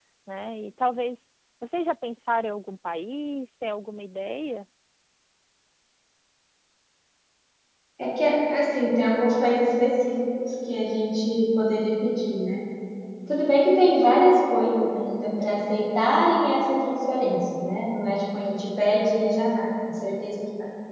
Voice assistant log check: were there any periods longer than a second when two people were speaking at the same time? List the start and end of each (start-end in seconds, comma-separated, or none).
none